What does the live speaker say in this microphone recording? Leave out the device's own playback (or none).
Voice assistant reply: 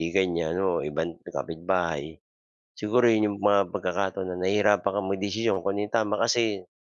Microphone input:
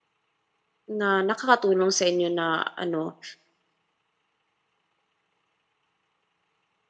na nakakatulong sa inyo na ano